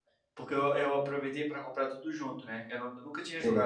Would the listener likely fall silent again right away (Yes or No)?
Yes